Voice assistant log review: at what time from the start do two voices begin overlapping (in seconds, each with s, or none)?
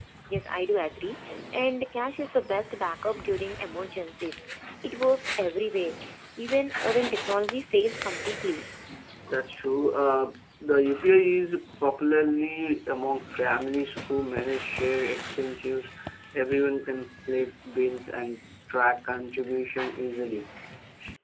none